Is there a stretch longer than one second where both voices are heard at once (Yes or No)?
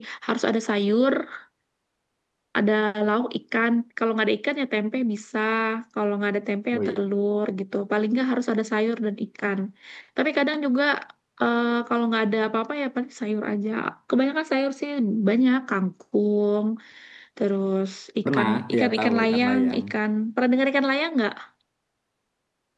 Yes